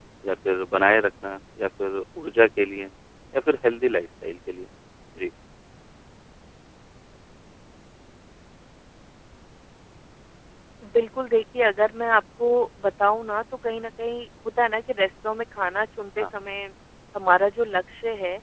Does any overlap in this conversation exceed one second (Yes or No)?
No